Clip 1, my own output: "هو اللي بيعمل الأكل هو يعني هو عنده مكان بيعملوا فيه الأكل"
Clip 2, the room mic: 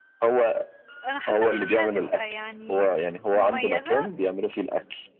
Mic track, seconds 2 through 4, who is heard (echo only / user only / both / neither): both